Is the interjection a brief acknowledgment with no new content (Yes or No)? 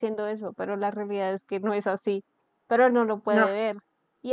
Yes